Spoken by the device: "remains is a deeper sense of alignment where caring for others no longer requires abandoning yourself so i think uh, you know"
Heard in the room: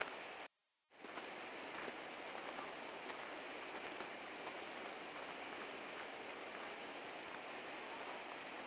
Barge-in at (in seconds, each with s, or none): none